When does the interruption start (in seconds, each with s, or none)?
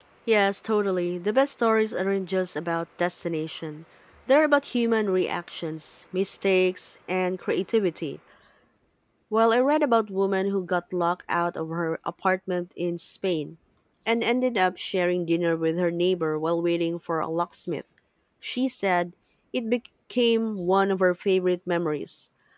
none